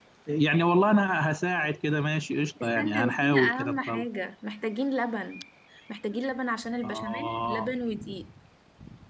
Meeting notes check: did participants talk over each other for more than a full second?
Yes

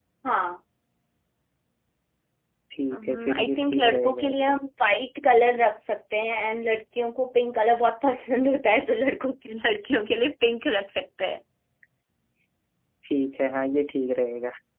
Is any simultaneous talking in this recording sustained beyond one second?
Yes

